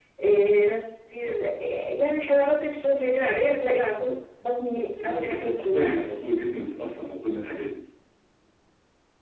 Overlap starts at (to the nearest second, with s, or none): 5 s